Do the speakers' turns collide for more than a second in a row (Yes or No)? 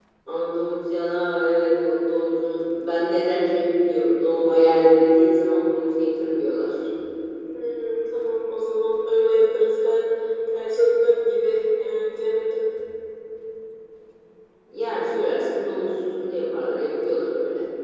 No